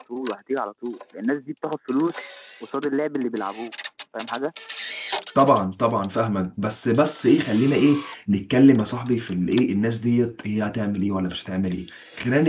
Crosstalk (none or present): none